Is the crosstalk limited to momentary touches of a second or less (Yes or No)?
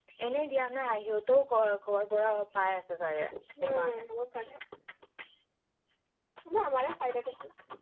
Yes